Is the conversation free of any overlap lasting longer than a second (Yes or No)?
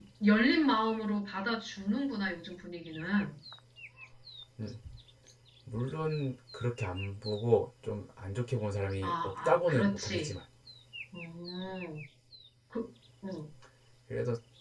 No